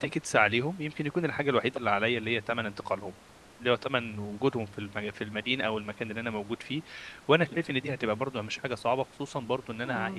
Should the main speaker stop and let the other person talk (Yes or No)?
No